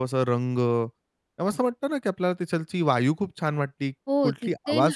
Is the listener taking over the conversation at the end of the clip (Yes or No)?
Yes